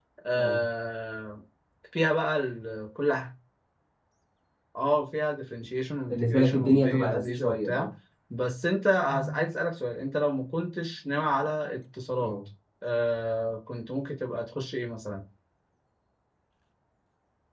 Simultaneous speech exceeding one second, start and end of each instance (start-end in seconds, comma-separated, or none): 6.1-7.9